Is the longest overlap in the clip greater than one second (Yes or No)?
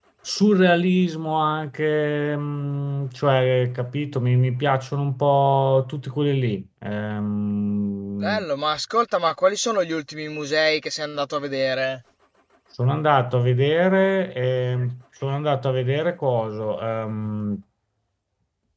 No